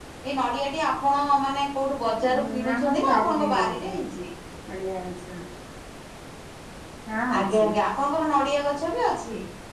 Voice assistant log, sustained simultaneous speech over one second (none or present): present